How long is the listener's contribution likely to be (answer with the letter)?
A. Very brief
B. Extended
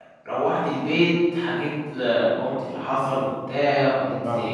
A